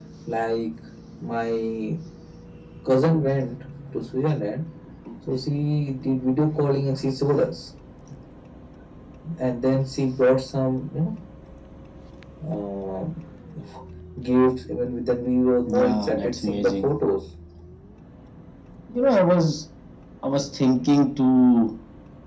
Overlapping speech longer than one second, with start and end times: 15.7-16.9

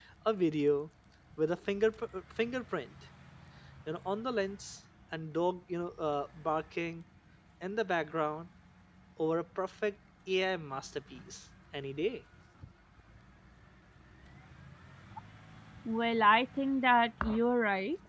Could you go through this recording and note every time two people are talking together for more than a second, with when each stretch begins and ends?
none

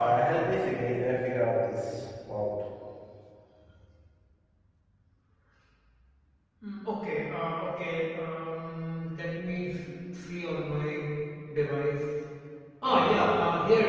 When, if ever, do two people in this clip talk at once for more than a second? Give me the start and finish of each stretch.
none

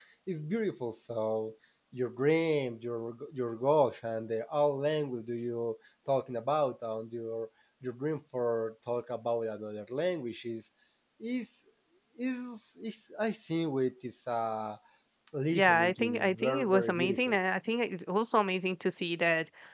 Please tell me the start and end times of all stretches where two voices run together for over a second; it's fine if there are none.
15.5-17.4

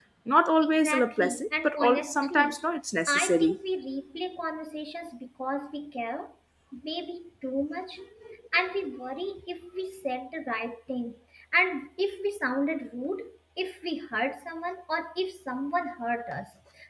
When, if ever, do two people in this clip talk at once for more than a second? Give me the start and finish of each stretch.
0.7-2.6

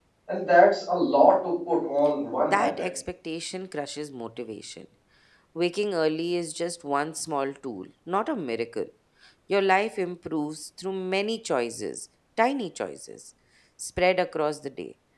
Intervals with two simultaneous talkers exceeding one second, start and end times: none

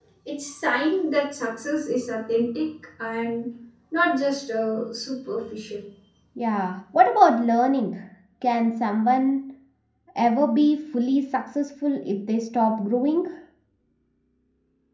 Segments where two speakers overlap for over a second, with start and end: none

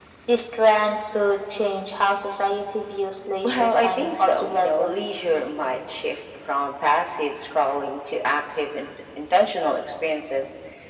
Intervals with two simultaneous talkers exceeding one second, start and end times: 3.4-4.9

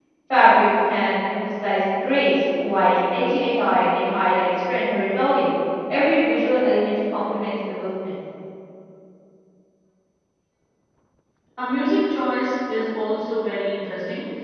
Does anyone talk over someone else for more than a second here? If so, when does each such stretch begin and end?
none

